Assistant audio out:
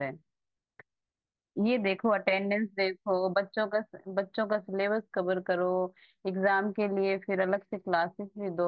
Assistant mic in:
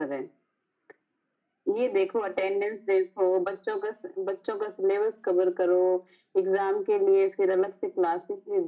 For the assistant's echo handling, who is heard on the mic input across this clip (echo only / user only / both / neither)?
echo only